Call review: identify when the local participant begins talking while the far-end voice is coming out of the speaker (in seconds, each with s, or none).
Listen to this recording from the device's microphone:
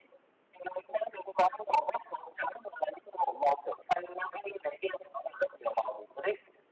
none